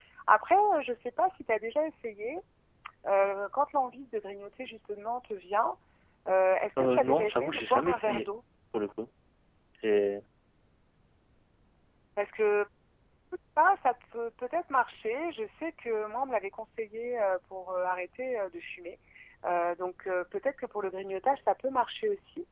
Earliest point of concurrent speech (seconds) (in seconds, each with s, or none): 6.8 s